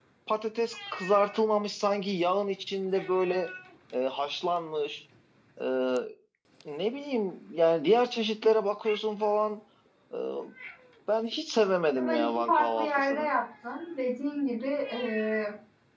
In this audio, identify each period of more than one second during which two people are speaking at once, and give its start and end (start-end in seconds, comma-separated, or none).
12.0-13.3